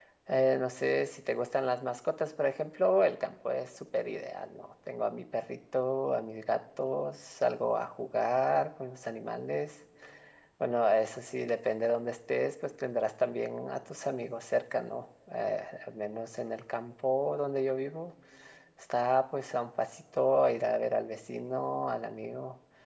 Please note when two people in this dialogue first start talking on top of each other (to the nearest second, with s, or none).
none